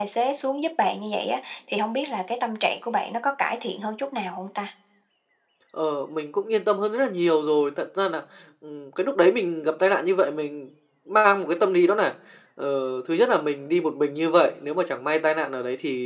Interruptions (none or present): none